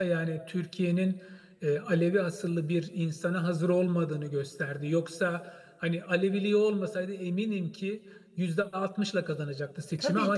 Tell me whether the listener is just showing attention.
Yes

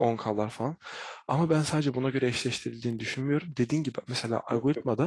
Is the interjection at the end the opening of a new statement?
No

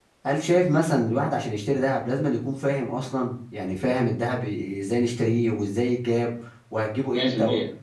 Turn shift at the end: No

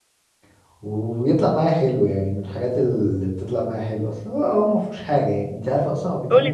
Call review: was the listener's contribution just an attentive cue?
No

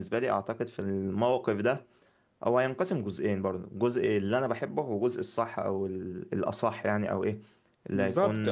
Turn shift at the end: No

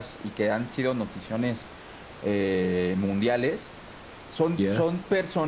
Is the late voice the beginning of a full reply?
No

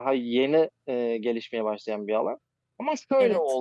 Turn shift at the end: No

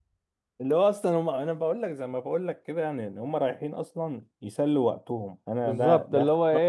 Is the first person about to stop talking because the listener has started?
Yes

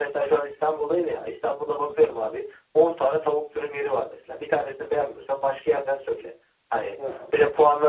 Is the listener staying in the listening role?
Yes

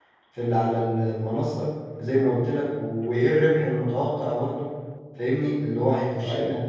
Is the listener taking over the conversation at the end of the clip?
No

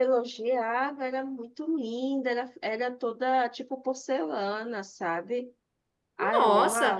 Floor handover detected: Yes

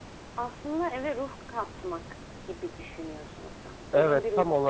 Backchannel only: No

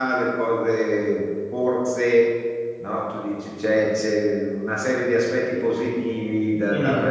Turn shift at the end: No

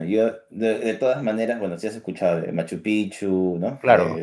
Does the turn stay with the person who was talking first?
Yes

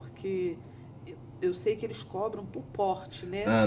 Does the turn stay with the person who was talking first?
No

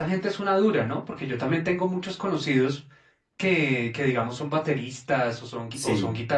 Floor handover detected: No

